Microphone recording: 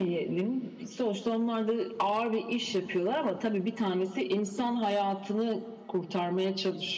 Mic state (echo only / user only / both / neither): echo only